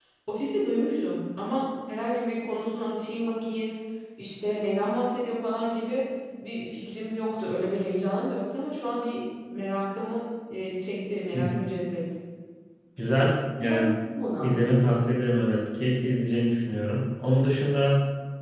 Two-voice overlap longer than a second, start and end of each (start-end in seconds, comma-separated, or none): none